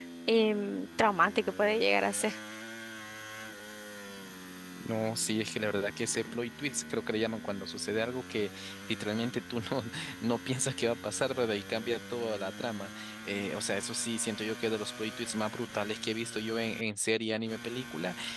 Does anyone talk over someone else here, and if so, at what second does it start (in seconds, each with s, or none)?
none